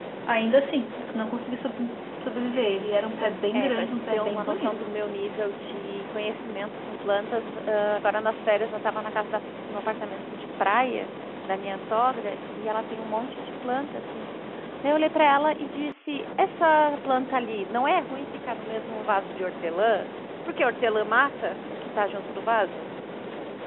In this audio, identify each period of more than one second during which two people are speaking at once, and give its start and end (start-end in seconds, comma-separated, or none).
3.5-4.7